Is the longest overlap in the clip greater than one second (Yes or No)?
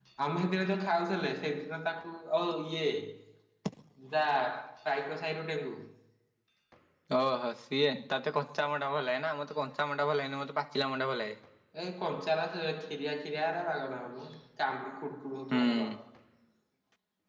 No